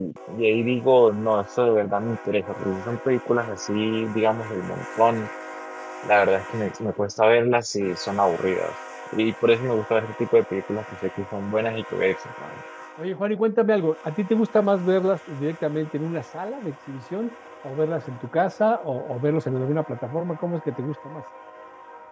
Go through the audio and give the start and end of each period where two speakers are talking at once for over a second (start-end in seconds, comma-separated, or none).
none